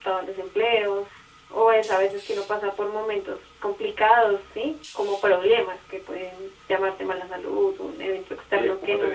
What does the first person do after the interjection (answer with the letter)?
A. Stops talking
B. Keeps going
A